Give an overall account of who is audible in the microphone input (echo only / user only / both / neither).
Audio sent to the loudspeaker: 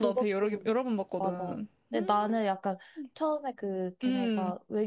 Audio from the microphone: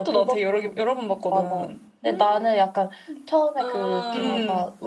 both